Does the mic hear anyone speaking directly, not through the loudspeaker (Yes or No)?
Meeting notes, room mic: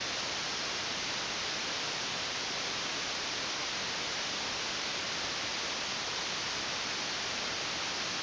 No